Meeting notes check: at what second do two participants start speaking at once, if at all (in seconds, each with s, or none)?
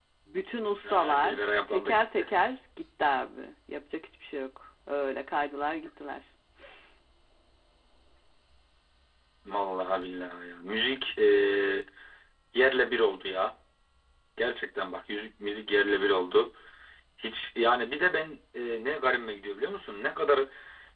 0.9 s